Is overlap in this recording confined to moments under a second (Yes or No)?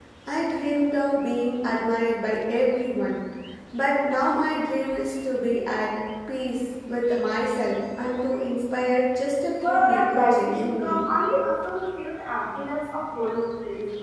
No